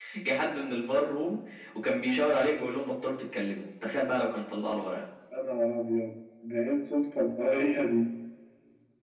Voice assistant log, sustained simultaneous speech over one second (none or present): none